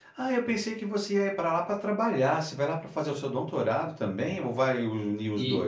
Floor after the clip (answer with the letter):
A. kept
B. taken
B